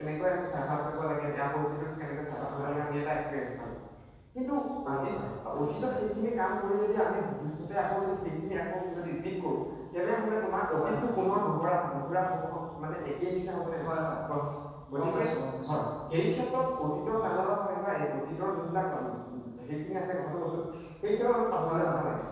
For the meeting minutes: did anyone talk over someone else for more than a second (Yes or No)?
No